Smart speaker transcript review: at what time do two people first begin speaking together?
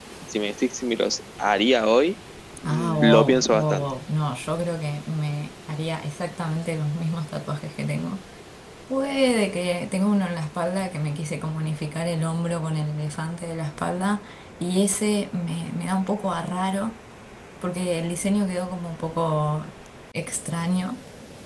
3 s

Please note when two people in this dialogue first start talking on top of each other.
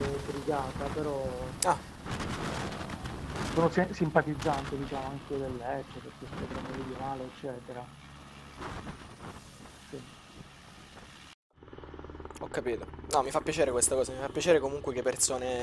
none

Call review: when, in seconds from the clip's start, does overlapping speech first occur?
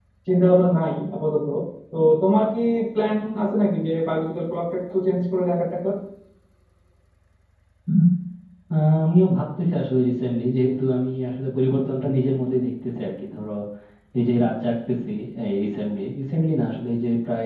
none

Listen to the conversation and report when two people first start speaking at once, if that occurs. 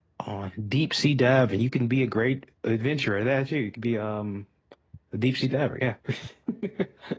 none

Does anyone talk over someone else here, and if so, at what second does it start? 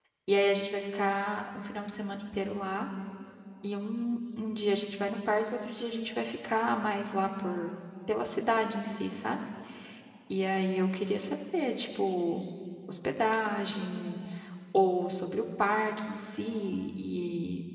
none

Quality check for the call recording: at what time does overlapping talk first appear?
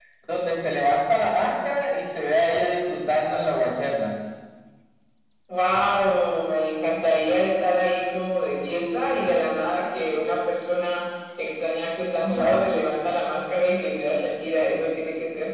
none

